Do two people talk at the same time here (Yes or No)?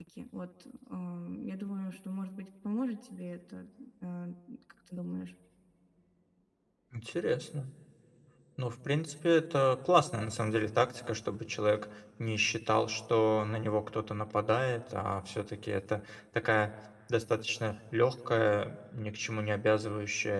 No